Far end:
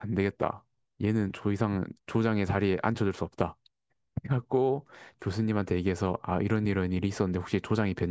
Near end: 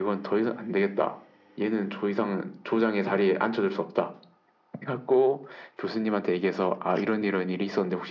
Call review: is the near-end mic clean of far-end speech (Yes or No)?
No